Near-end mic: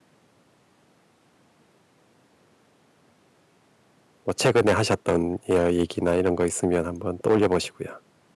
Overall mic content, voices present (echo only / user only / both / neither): user only